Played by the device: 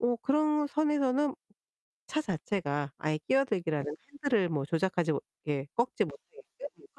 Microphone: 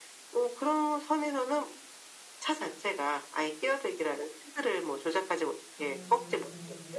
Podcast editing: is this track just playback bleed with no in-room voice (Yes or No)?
No